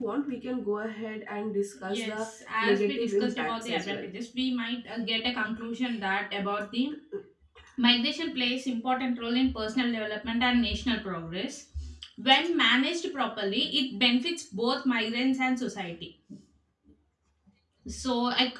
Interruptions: present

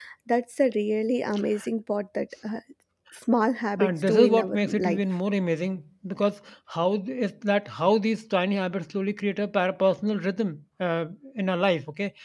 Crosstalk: present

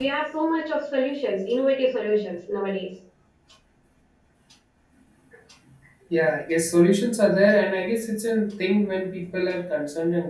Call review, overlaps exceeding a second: none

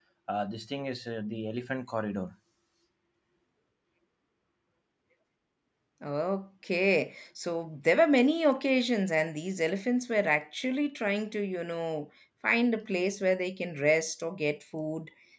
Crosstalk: none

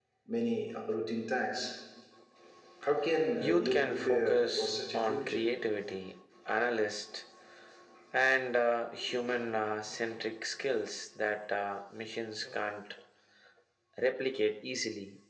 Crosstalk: present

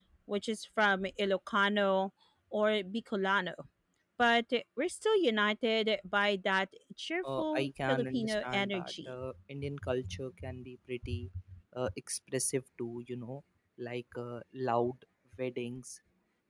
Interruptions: present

